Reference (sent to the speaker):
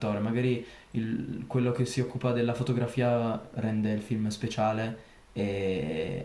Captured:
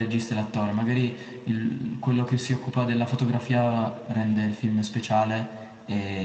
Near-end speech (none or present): none